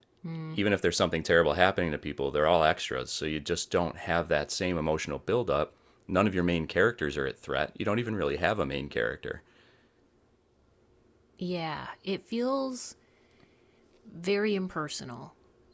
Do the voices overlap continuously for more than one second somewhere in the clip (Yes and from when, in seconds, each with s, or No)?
No